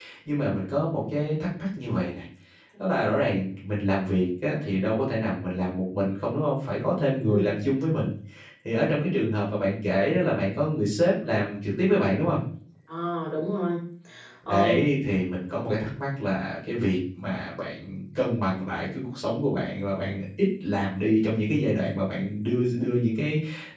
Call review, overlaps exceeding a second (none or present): none